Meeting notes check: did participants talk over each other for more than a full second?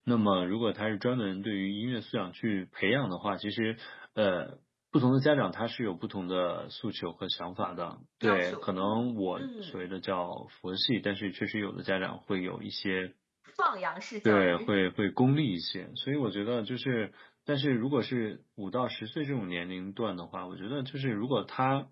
No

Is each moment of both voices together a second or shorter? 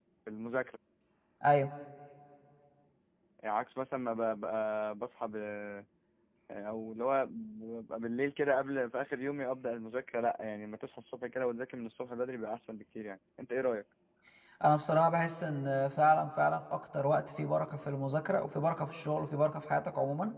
Yes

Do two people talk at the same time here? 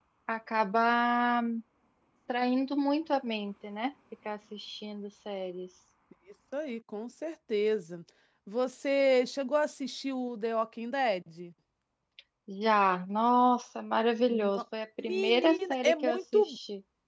Yes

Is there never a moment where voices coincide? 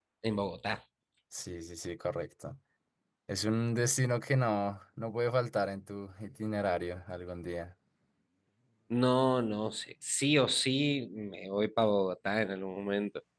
Yes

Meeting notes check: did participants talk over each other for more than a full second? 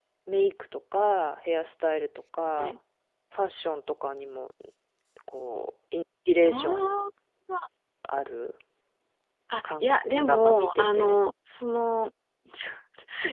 Yes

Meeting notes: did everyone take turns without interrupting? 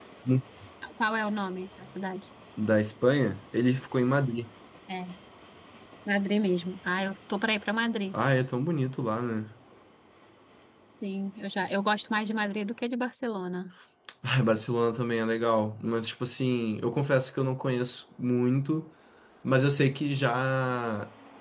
Yes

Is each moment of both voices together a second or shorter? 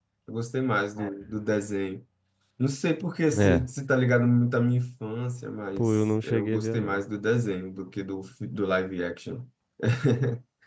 No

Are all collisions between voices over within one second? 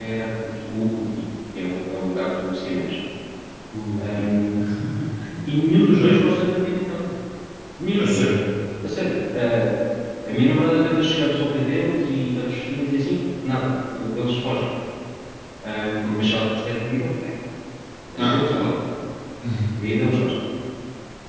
Yes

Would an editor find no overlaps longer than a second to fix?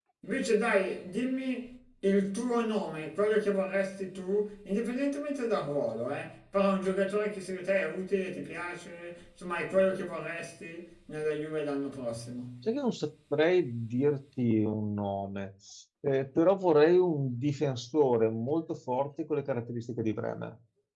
Yes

